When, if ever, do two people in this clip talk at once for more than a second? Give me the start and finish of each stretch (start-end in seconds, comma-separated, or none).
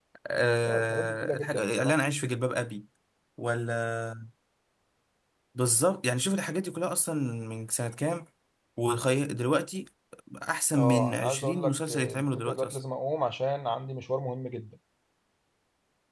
0.6-2.0, 10.8-12.8